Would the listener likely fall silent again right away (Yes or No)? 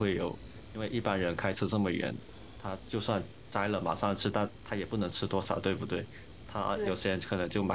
Yes